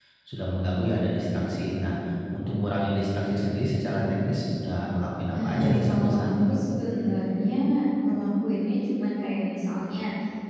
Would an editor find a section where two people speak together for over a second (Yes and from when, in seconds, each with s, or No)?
Yes, from 5.3 s